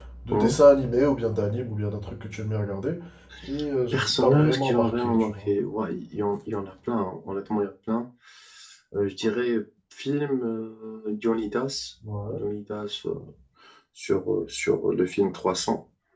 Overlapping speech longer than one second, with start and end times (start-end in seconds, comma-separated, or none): 3.9-5.5